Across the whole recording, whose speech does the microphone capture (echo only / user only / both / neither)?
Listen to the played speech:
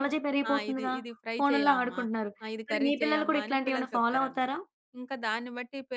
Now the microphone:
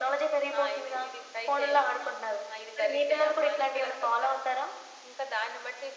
echo only